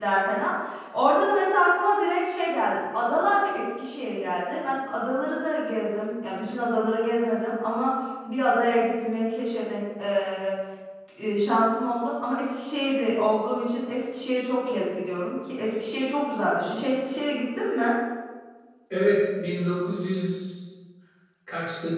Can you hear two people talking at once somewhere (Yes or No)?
No